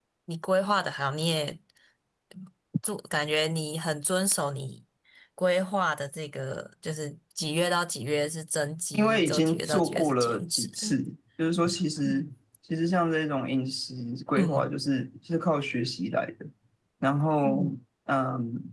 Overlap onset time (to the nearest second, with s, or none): 9 s